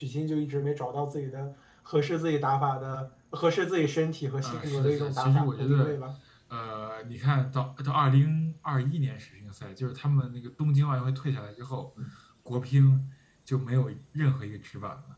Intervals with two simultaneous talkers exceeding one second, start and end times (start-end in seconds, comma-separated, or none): 4.4-6.0